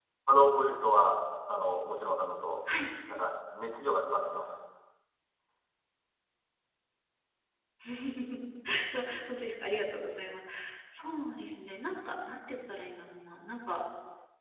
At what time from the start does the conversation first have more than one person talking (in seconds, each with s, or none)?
none